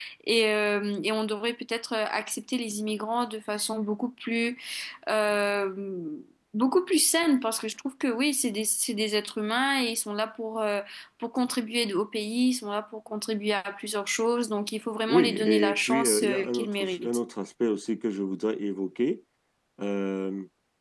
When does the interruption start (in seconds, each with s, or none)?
15.1 s